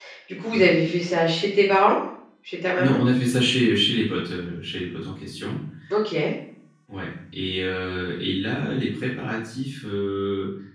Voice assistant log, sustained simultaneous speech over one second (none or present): none